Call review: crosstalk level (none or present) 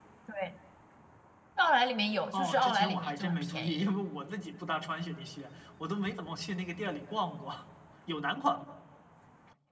present